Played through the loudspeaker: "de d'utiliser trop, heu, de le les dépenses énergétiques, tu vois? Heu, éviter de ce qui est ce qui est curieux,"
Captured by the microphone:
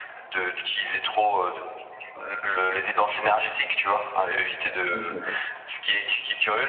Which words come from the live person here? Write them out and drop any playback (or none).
ouais, je suis d'accord.